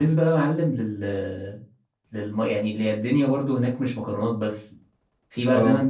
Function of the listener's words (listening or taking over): listening